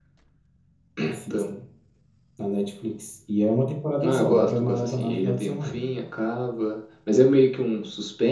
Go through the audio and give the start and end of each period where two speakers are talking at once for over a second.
4.0-5.8

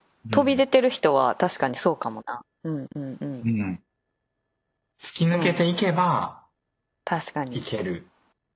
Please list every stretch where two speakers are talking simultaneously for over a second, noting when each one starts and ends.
none

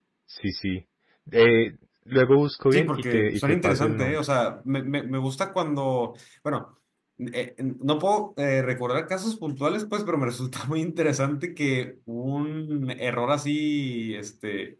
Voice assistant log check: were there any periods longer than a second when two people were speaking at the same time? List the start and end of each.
2.7-4.2

